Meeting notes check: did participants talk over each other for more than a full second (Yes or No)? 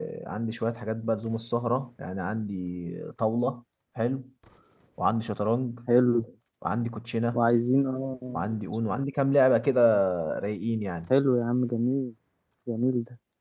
No